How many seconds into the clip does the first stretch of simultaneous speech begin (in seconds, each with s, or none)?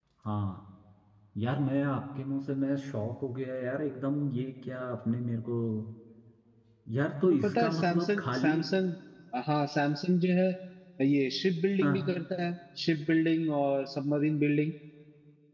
7.2 s